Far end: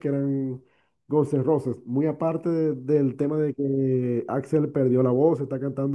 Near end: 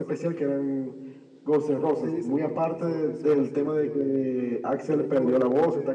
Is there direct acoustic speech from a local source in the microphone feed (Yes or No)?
Yes